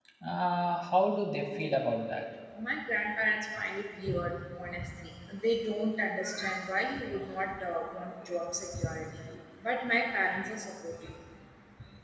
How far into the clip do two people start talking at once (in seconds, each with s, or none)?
none